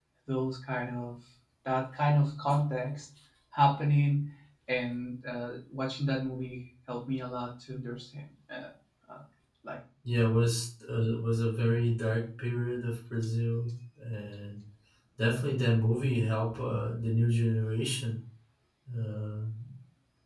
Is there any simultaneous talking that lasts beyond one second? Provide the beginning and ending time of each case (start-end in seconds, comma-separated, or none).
none